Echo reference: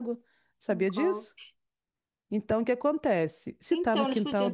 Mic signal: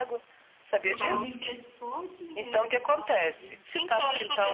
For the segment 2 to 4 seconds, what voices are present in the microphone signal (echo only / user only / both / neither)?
both